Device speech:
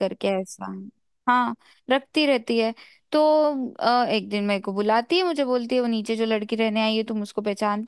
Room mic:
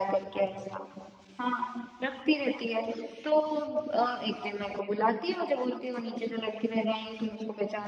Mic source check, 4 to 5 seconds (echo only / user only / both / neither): echo only